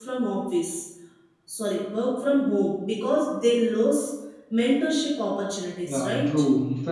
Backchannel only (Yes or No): No